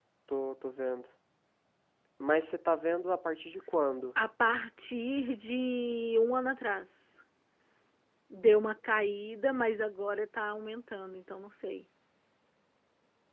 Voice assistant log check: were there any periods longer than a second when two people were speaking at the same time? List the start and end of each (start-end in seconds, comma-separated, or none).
none